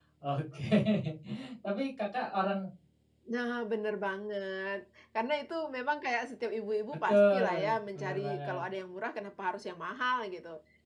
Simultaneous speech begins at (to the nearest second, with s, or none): 7 s